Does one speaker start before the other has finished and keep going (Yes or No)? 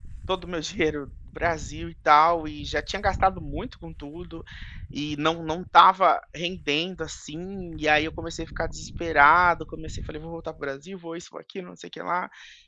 No